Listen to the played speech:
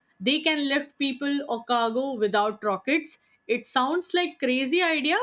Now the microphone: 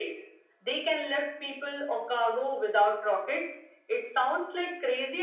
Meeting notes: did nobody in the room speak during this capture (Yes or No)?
Yes